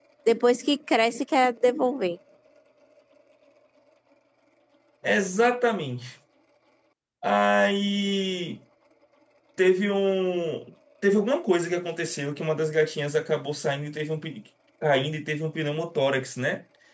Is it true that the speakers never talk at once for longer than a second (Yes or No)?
Yes